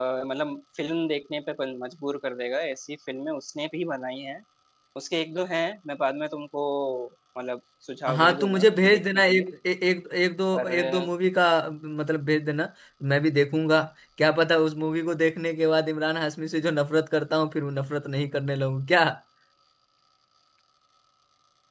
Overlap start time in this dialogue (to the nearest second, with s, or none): 8 s